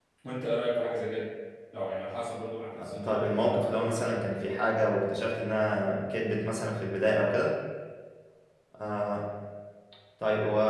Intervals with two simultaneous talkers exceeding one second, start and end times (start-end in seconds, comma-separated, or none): 2.8-4.5